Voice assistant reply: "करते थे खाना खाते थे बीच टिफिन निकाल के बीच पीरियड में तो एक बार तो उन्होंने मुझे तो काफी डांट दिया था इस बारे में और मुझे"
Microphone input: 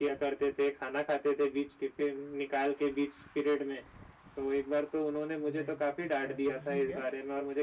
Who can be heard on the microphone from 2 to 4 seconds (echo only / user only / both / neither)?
echo only